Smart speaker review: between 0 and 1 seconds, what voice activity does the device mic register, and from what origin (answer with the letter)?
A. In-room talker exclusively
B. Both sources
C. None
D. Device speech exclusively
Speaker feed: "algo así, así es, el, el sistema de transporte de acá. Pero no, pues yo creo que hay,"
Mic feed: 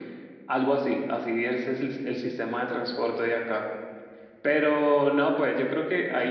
D